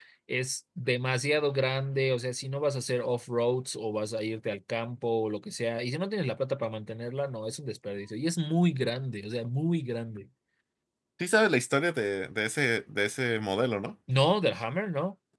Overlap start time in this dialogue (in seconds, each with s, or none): none